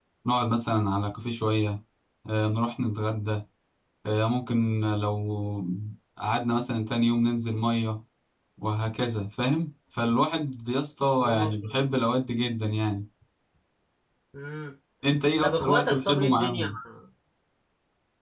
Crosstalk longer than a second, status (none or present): present